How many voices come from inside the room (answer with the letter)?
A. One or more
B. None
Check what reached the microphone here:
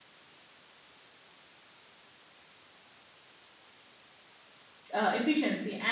A